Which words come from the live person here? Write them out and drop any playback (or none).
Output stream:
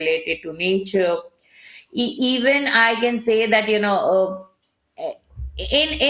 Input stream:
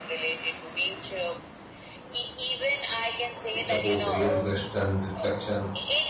It supports the real rest and reflection.